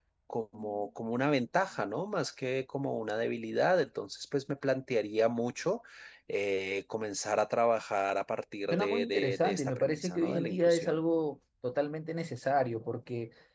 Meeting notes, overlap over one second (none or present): present